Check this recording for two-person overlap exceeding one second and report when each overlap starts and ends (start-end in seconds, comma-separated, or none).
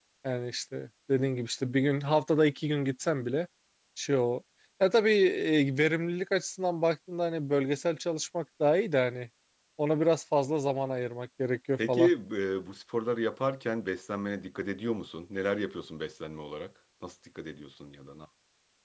none